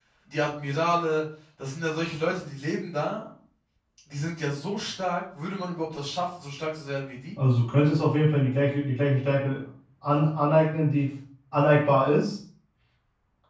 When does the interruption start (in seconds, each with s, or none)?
none